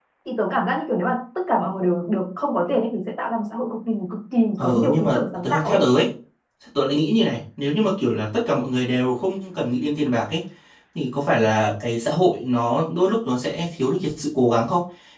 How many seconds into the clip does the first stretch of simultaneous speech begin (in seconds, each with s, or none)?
4.6 s